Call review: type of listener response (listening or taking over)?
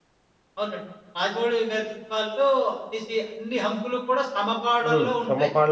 taking over